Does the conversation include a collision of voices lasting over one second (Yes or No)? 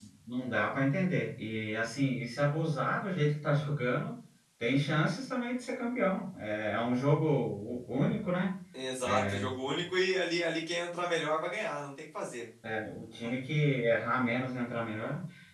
No